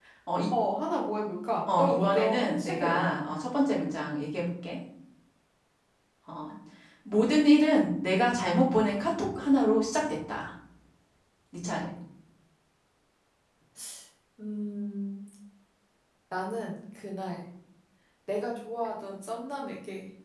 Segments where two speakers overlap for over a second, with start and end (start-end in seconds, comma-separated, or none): 1.7-3.1